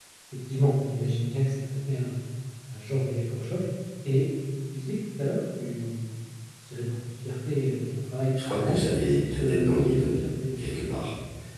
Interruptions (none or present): present